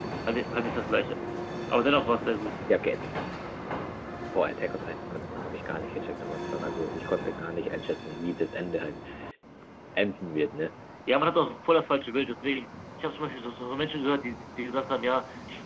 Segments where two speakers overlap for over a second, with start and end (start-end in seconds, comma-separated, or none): none